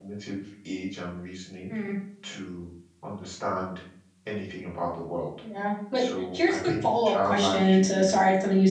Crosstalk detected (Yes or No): Yes